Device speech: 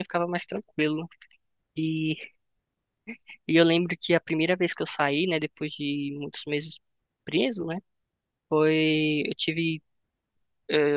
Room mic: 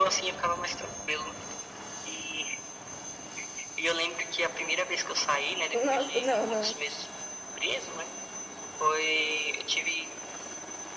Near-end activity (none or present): present